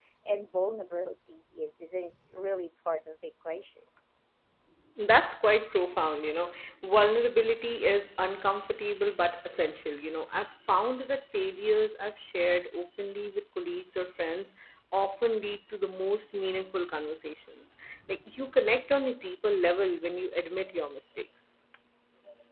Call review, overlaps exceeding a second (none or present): none